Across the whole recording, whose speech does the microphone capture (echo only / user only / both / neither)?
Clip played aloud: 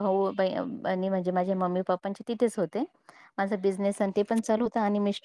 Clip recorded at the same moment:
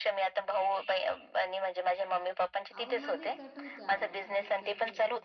both